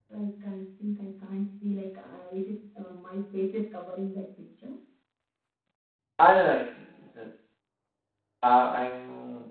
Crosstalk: none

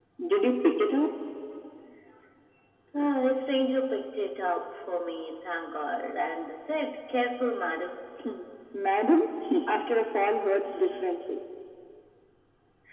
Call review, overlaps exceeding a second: none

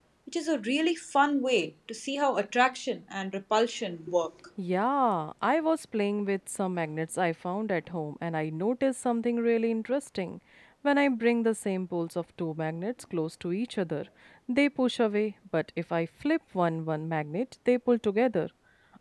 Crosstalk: none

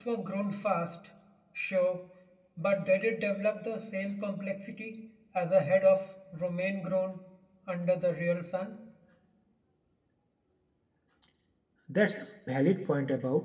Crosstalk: none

